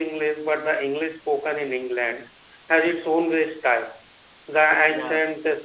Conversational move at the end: listening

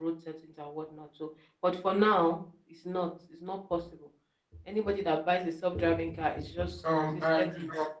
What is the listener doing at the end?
taking over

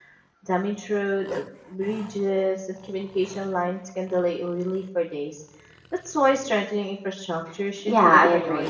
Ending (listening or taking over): taking over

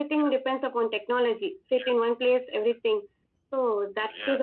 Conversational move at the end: taking over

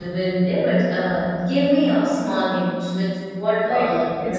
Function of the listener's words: taking over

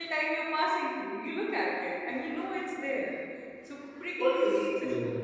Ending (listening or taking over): taking over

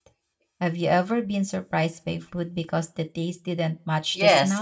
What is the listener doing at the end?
taking over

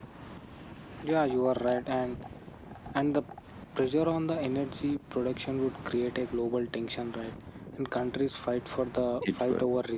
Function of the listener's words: listening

